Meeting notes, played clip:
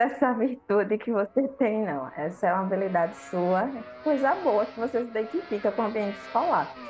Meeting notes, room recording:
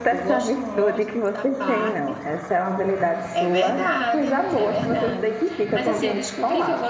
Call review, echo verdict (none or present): present